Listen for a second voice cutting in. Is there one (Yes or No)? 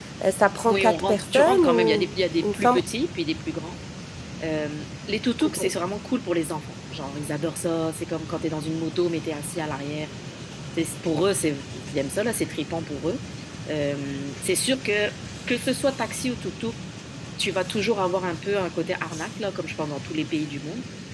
Yes